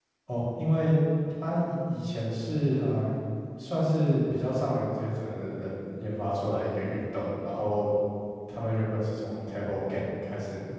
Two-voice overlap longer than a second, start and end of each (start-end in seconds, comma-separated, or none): none